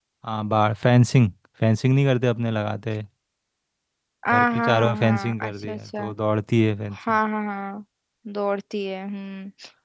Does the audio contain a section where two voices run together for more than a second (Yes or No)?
Yes